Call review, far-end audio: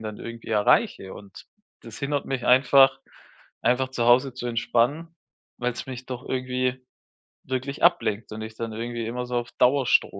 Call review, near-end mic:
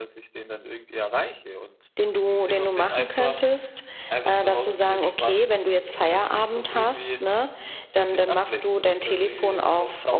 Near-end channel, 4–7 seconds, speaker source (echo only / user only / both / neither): both